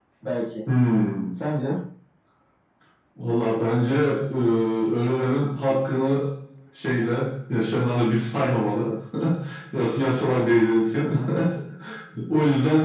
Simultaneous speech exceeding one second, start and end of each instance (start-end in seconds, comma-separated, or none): none